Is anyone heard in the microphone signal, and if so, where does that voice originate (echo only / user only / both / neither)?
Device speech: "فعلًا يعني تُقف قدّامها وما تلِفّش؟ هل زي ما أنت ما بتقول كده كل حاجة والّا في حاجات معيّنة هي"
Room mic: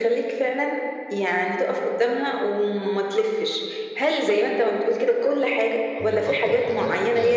both